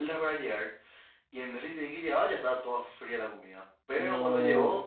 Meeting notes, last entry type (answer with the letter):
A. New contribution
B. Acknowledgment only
B